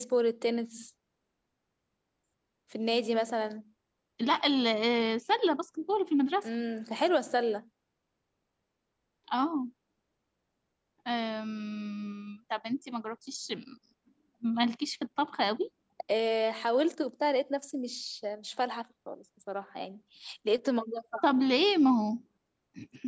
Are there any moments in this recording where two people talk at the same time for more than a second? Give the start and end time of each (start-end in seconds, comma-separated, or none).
none